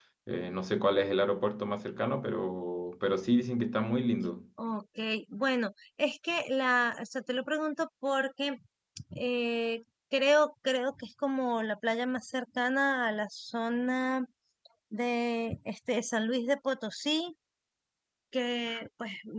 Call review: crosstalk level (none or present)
none